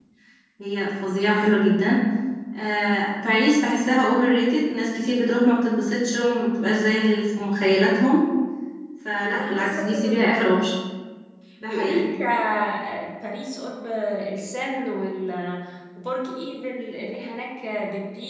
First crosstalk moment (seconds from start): 9.3 s

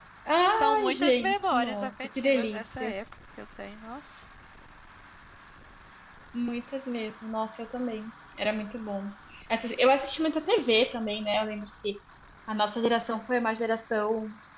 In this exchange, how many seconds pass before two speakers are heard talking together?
0.6 s

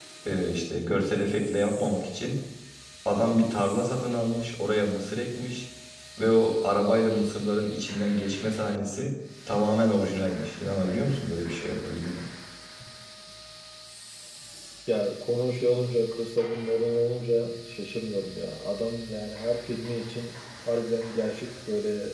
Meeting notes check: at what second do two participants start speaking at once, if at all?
none

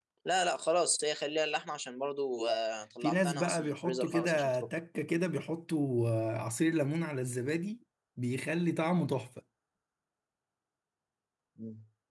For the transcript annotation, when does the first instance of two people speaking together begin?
3.0 s

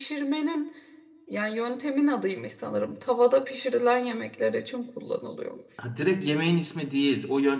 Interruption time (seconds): none

